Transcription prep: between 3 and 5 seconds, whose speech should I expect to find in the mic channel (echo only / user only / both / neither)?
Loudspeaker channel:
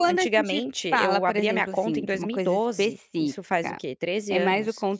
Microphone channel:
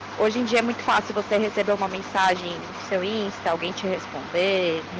user only